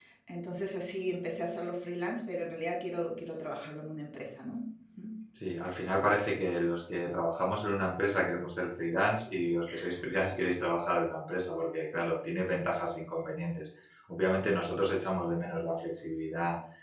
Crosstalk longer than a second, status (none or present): none